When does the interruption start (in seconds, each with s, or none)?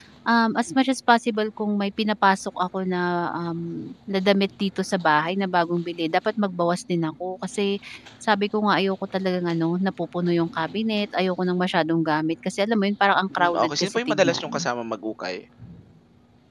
13.3 s